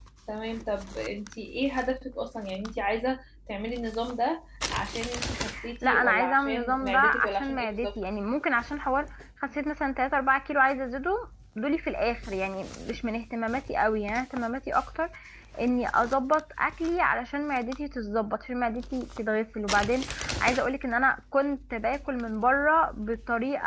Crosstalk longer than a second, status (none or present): present